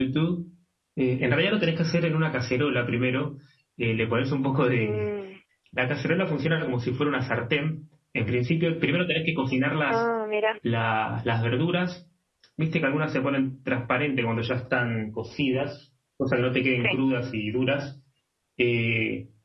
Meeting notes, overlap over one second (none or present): none